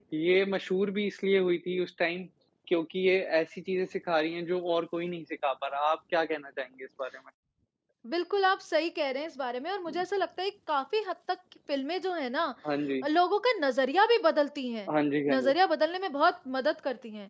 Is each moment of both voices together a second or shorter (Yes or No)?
Yes